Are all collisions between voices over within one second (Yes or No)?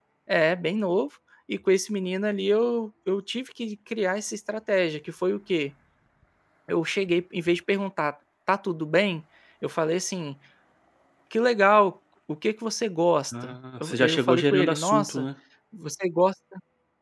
No